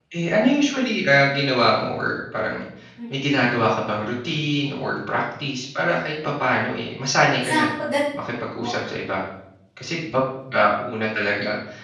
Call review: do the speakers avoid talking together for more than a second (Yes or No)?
Yes